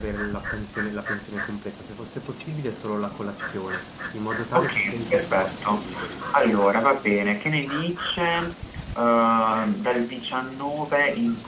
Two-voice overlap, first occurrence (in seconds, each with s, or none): 4.5 s